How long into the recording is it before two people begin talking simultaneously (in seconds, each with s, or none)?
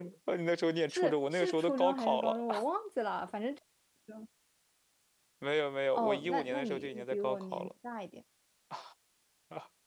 0.9 s